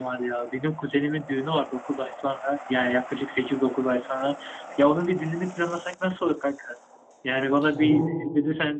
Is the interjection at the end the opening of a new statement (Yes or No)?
No